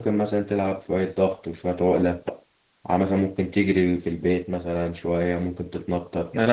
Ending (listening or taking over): taking over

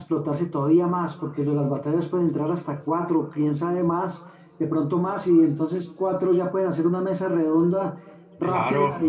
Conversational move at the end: listening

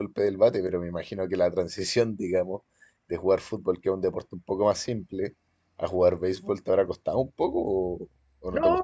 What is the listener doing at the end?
taking over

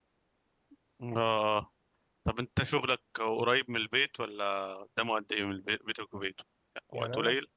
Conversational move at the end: taking over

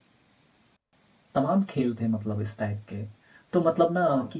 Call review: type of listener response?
listening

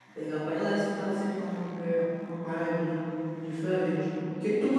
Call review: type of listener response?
listening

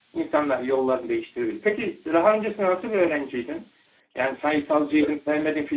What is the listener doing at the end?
listening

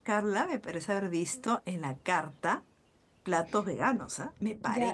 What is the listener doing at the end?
taking over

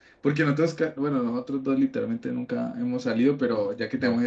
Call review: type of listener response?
listening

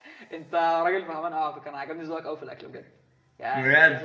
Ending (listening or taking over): taking over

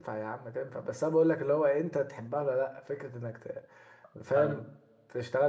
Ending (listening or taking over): listening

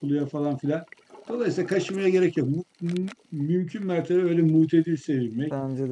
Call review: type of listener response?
listening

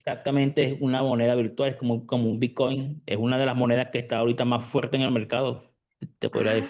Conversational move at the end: taking over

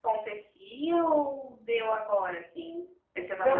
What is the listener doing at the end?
taking over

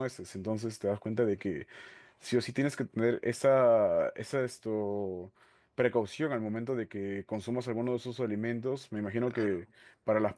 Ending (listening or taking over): listening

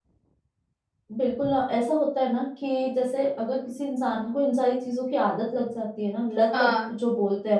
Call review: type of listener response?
listening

